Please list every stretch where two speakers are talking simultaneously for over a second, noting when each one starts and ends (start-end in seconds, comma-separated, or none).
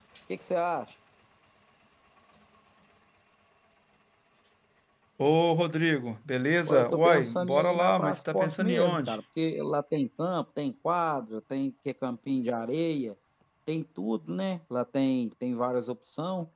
6.7-9.2